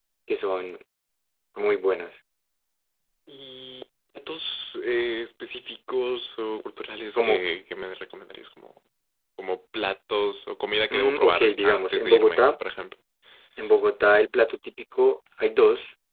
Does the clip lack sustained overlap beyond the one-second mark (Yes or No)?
No